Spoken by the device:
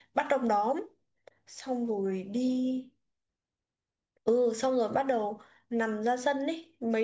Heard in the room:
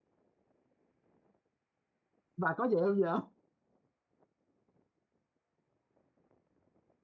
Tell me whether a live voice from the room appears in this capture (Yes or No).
Yes